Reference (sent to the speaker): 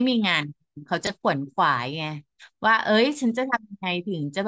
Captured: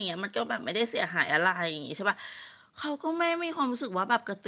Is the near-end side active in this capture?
Yes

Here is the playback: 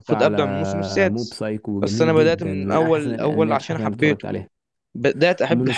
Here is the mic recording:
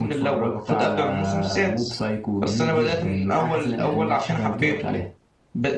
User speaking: No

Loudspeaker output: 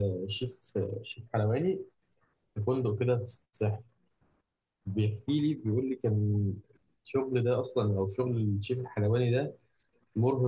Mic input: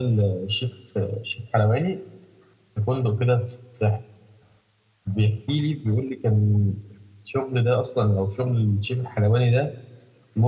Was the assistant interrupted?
No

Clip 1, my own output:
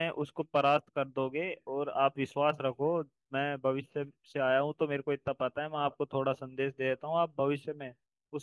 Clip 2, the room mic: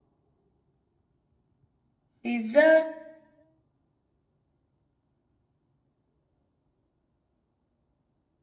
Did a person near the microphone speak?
Yes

